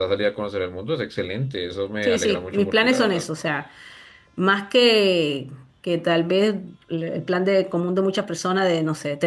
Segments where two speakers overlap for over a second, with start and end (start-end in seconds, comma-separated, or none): 2.0-3.2